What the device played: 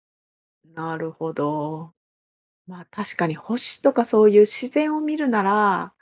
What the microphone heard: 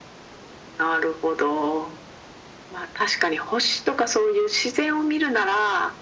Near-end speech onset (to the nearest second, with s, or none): none